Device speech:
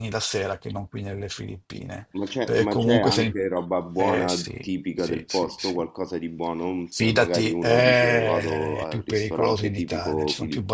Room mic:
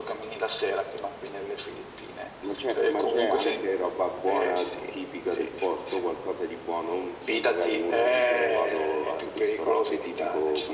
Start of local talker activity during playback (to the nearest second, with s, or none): none